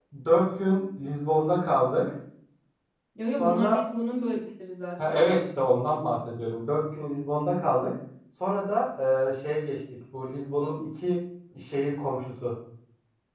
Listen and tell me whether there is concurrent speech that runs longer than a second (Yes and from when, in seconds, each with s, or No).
No